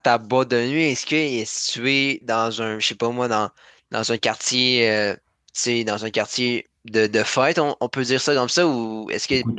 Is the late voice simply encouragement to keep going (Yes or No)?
No